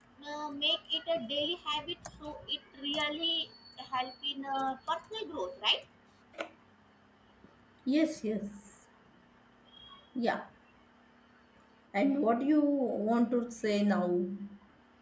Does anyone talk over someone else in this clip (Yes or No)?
No